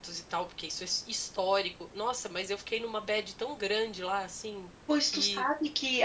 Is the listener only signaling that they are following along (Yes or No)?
No